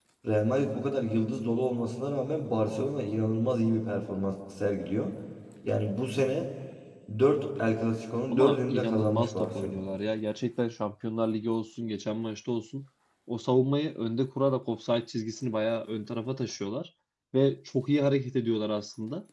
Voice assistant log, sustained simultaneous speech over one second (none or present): present